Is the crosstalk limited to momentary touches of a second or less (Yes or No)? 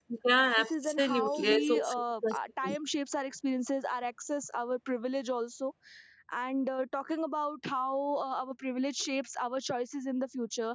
No